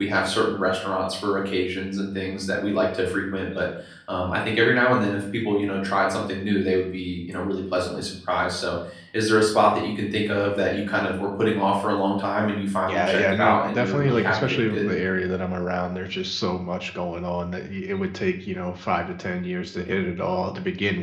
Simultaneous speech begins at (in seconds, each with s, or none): 12.9 s